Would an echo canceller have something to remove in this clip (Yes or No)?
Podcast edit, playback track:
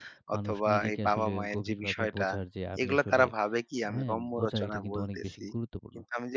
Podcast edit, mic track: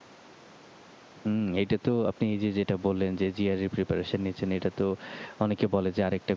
No